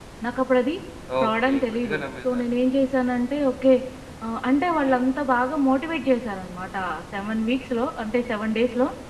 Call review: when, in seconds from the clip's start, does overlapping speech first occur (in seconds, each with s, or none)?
1.2 s